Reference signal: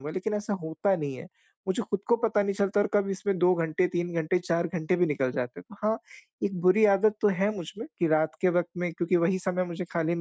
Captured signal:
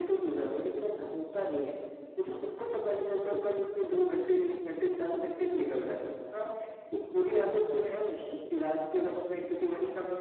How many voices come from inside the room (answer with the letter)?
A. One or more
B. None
B